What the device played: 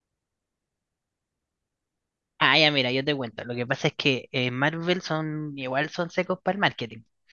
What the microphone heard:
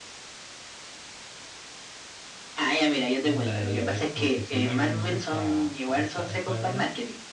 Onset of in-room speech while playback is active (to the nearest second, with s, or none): 3 s